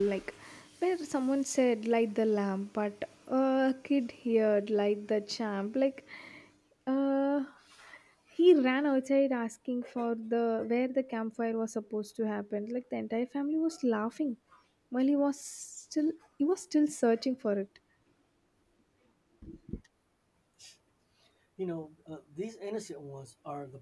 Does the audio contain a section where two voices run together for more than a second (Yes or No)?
No